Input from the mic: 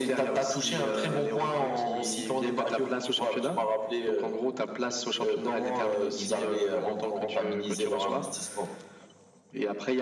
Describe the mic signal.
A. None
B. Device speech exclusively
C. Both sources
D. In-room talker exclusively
B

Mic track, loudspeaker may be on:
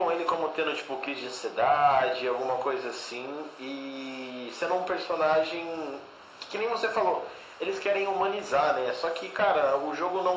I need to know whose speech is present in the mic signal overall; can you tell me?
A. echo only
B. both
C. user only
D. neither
A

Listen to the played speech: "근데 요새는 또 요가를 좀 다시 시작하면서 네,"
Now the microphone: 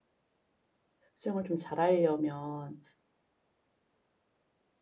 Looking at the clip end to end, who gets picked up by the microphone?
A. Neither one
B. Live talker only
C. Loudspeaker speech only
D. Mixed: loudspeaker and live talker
B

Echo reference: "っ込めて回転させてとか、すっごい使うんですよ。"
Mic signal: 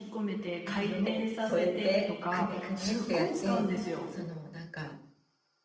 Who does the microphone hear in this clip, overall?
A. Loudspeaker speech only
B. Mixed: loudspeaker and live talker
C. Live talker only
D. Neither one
B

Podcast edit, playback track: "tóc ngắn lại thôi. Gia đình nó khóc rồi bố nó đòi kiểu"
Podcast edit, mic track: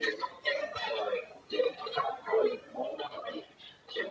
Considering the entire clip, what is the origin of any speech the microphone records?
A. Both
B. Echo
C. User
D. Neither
B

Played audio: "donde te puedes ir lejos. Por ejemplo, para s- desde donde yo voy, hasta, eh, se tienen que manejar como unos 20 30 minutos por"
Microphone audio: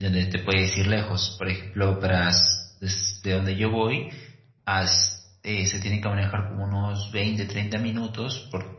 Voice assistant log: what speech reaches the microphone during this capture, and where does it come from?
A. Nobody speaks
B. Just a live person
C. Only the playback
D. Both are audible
C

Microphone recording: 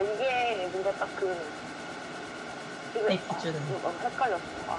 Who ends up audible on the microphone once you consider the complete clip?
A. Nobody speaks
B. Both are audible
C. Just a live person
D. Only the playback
B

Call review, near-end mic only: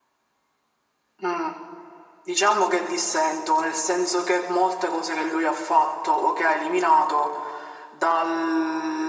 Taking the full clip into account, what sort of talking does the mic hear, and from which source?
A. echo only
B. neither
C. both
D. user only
A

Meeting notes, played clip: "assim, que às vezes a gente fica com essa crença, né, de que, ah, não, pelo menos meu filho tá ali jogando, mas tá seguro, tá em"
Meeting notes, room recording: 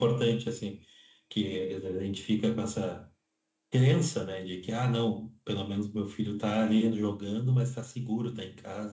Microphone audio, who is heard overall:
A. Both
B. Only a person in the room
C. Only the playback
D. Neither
C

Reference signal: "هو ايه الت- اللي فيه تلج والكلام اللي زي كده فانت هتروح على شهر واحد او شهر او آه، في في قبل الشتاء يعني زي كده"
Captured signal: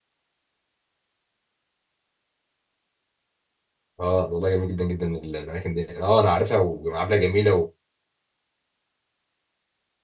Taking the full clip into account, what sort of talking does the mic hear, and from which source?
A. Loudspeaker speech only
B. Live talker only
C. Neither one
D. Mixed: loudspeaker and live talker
B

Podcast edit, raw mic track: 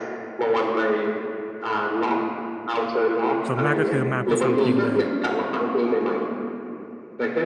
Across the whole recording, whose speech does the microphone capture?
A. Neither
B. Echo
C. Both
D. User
C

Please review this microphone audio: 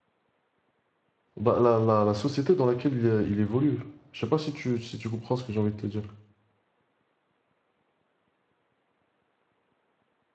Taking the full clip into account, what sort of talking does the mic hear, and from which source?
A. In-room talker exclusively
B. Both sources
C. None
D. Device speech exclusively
A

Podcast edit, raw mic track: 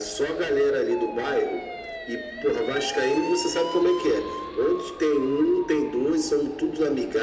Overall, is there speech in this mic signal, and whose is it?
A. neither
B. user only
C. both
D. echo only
D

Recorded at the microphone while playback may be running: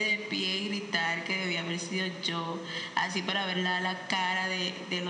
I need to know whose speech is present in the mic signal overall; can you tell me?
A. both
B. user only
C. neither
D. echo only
D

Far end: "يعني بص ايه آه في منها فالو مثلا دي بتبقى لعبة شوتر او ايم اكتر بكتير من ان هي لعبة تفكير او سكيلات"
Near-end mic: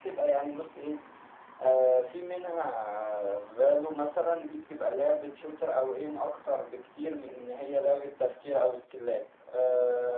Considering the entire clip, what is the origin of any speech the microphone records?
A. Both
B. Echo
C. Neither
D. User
B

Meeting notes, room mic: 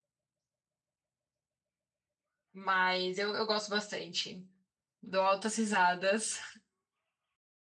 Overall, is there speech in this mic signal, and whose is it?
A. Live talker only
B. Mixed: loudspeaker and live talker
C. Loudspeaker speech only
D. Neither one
A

